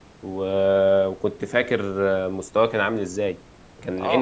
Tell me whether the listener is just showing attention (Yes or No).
No